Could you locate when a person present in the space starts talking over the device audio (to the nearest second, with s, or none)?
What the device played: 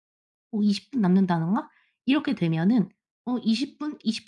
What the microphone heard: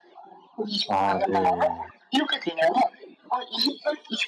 1 s